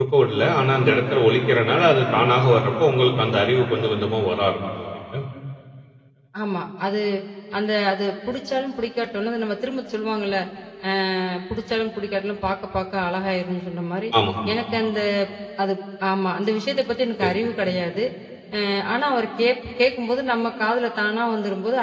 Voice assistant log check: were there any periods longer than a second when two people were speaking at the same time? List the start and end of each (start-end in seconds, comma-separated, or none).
none